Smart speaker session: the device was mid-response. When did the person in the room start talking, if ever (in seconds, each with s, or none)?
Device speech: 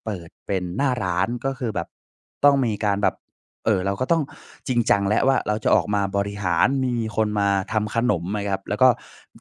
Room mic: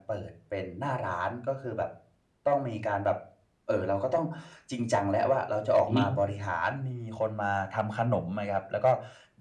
5.9 s